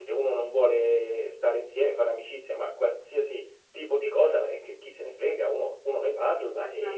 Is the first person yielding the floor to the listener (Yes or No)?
Yes